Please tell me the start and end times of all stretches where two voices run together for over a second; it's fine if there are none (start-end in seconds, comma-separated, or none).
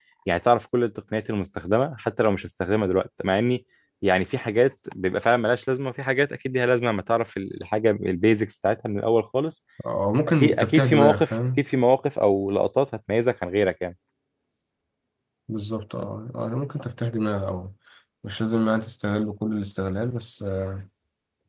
10.4-11.6